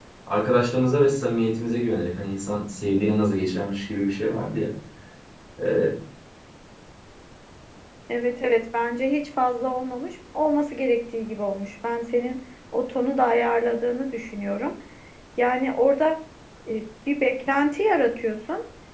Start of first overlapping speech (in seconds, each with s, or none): none